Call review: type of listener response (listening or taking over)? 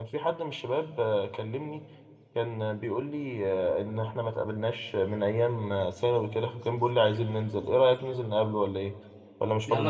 taking over